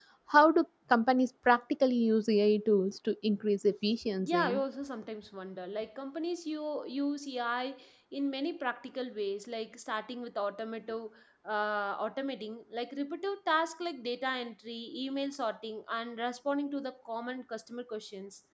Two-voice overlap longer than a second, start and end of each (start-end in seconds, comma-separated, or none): none